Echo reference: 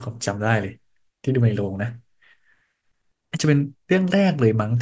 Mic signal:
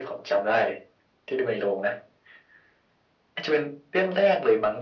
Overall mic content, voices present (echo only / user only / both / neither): echo only